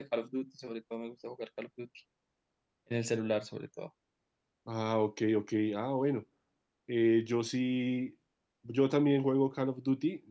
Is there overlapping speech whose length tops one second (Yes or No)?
No